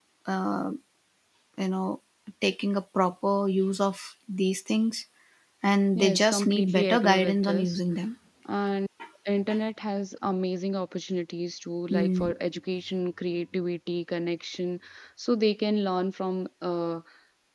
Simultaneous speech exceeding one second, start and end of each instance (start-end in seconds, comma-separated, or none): 6.0-7.8